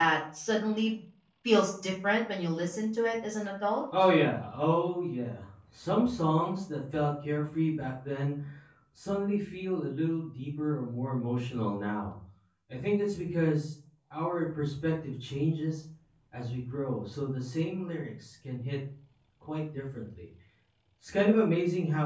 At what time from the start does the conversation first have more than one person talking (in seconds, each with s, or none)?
none